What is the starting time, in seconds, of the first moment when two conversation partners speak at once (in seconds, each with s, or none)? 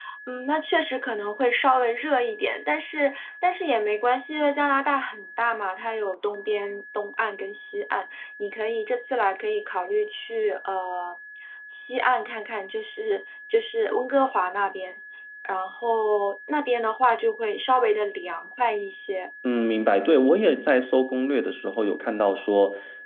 none